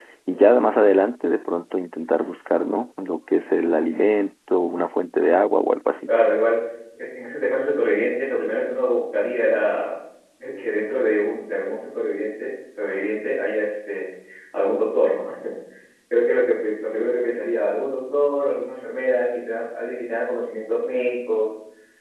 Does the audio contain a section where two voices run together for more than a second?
No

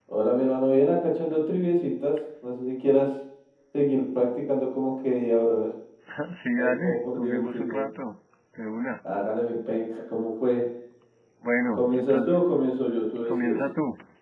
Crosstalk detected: Yes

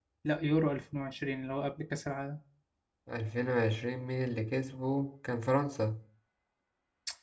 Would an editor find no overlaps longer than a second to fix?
Yes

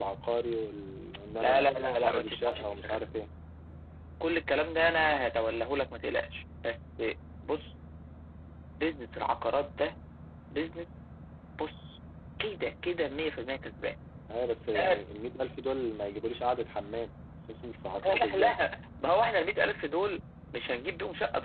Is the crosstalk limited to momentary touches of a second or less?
No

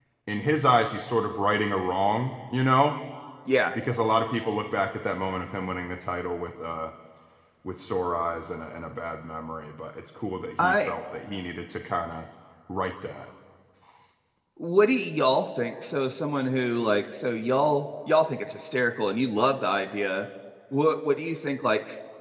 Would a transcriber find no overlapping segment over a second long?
Yes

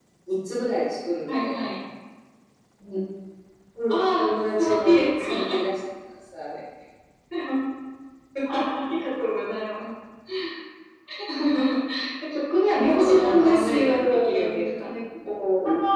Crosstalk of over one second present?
Yes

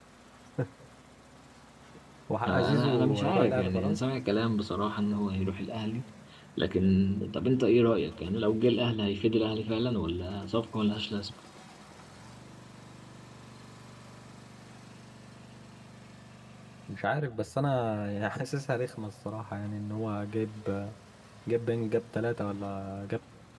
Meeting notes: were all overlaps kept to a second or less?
No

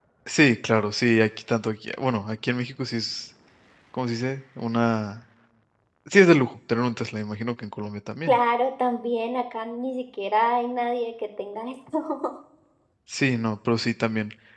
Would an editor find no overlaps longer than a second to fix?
Yes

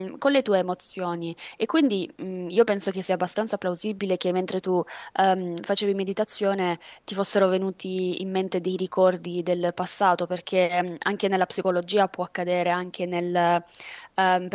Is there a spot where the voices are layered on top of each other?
No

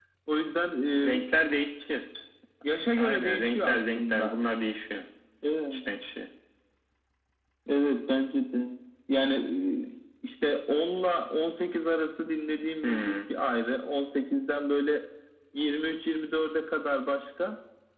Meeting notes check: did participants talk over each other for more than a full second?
Yes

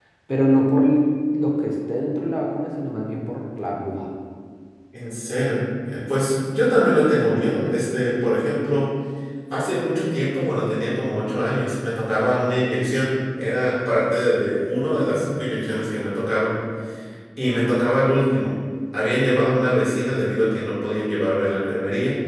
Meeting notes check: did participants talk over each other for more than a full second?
No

